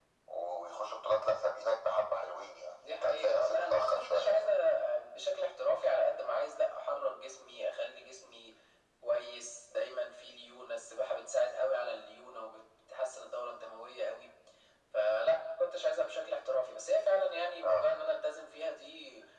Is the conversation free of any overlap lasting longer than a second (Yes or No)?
No